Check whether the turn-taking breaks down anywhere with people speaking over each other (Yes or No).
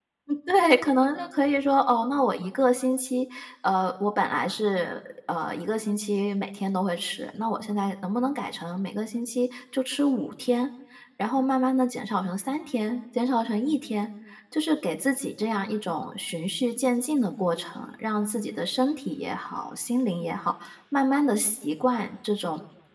No